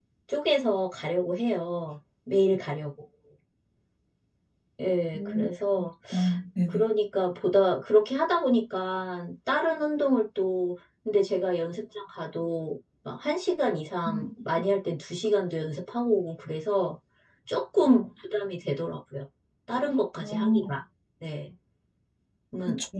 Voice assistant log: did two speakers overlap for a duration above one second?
No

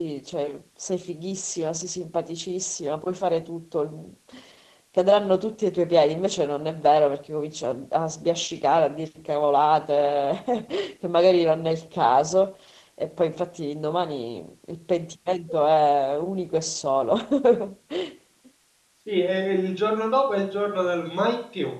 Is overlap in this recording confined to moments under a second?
Yes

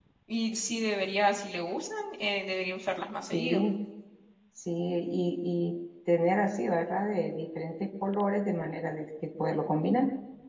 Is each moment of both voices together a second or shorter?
Yes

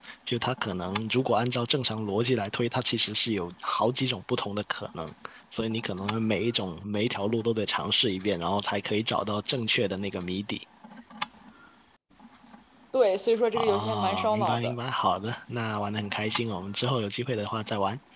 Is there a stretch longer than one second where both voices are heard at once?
Yes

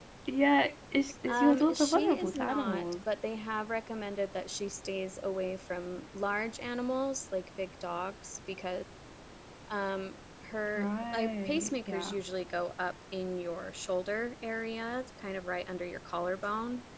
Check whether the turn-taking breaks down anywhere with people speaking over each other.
Yes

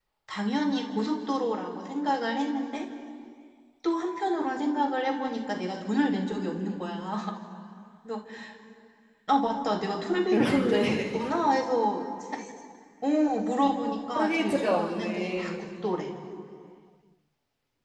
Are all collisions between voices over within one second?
No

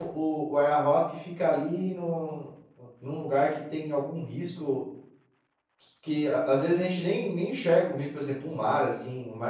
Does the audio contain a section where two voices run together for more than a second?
No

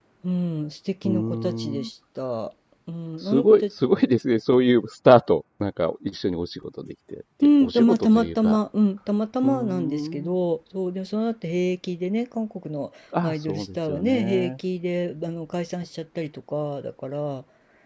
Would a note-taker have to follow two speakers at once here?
Yes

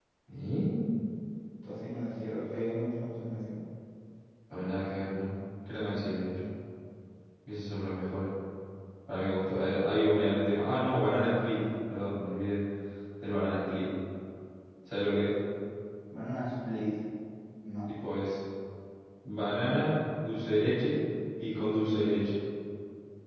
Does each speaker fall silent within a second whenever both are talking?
Yes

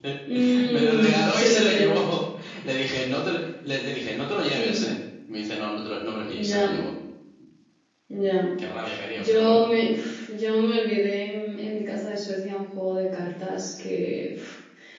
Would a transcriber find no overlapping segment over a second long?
No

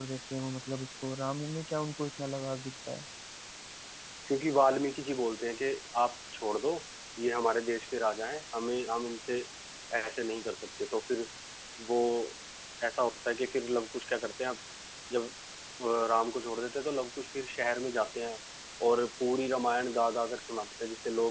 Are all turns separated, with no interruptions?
Yes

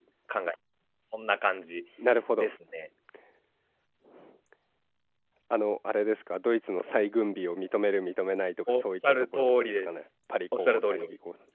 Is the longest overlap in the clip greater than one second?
Yes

